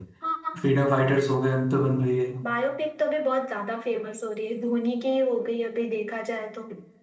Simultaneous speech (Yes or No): No